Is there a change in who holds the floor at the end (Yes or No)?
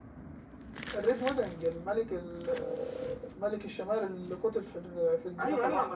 Yes